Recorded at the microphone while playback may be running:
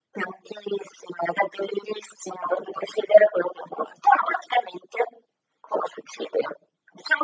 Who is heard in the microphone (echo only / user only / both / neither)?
echo only